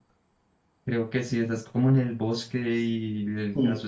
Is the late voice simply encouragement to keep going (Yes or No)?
Yes